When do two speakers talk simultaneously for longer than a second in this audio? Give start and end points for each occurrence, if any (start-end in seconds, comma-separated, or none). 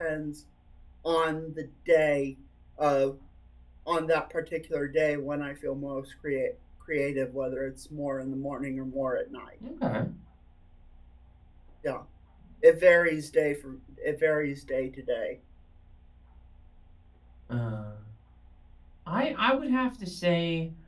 none